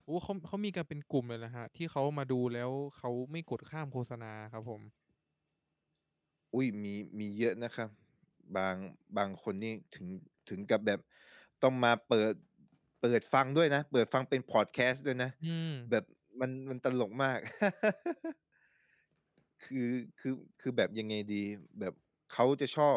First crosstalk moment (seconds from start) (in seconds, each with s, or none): none